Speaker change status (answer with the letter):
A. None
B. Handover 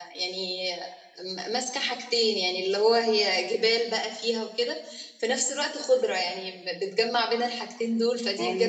B